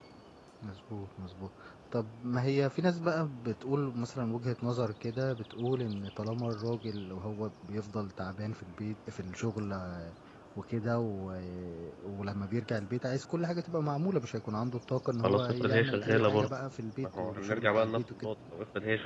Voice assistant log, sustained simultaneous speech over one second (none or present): present